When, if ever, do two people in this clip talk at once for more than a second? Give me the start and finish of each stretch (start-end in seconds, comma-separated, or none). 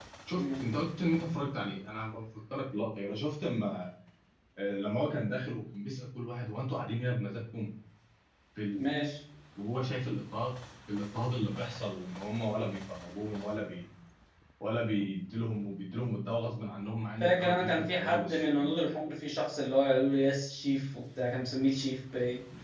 17.2-18.6